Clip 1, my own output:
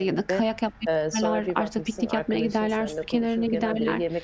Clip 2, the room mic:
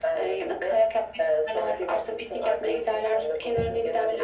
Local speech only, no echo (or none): none